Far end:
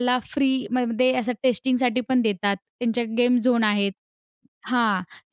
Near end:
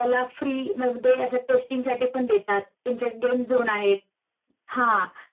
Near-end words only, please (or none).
none